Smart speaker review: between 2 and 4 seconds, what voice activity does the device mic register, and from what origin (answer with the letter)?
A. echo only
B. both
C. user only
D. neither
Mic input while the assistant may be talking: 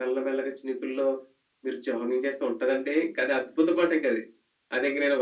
A